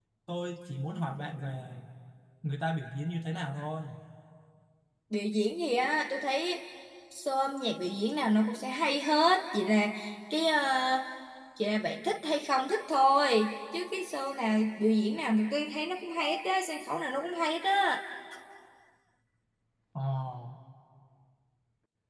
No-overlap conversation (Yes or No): Yes